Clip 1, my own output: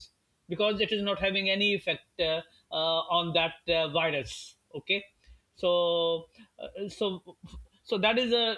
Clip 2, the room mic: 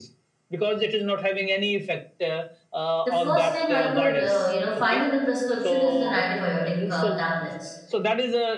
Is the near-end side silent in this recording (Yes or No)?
No